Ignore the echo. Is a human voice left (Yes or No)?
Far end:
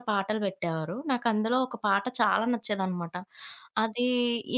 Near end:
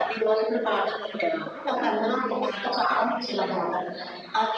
No